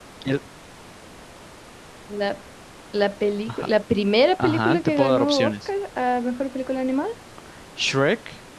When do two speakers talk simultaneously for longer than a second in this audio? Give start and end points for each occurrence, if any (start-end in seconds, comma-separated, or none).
4.4-5.7